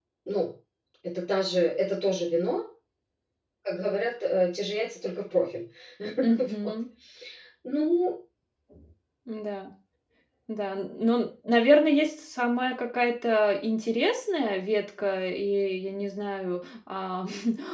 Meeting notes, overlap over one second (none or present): none